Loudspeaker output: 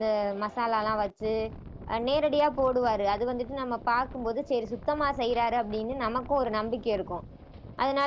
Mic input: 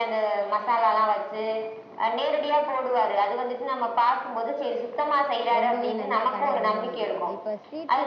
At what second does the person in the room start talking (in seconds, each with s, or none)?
5.6 s